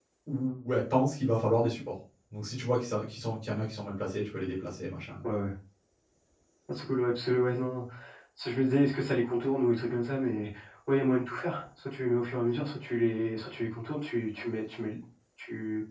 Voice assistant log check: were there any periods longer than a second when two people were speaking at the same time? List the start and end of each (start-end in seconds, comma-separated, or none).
none